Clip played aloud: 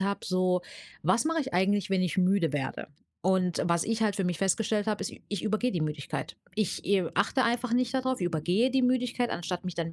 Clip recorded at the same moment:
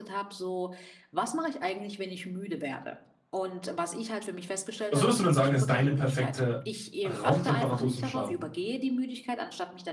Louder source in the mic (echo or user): user